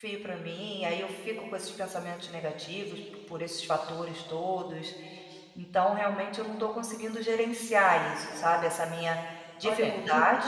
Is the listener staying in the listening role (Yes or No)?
No